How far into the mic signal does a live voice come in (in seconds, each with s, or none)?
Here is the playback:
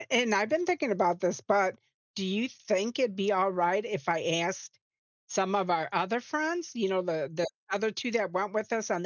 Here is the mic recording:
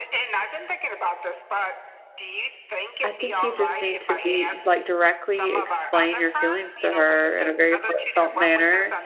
3.0 s